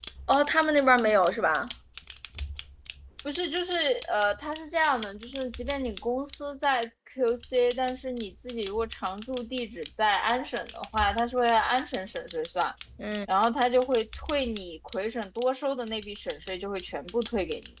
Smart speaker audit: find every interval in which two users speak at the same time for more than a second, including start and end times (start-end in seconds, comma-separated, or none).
none